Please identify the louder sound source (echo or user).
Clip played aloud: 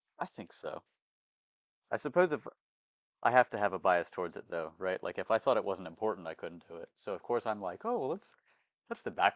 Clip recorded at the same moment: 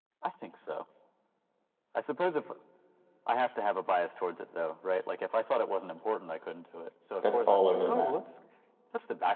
user